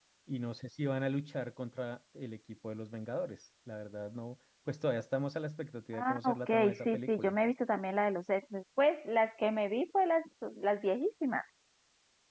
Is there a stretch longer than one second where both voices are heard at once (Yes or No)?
Yes